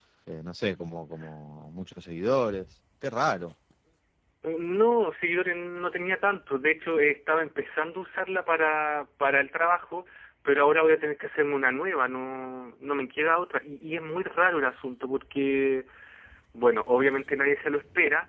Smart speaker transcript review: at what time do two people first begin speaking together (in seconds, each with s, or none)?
none